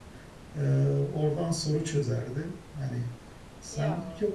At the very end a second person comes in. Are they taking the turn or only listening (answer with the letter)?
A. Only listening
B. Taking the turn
A